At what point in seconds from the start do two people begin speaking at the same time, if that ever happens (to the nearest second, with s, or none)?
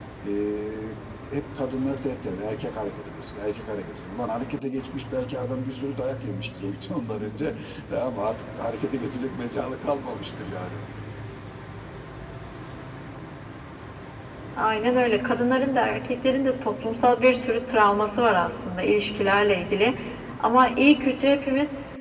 none